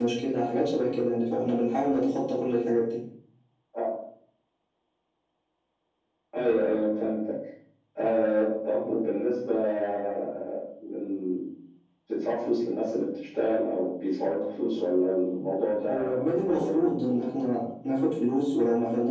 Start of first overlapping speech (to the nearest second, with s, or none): 16 s